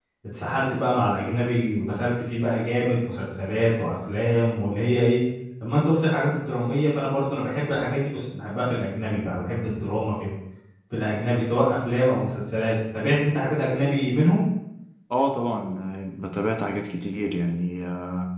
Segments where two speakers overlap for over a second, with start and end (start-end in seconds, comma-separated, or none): none